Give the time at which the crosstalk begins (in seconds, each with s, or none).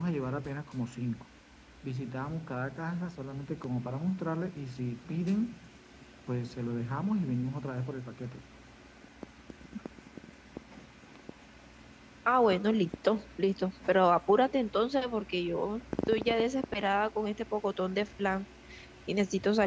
none